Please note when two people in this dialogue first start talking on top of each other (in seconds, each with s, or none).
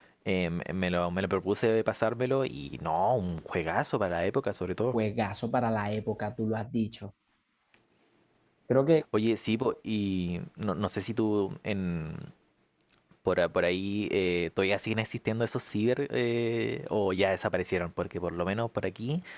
none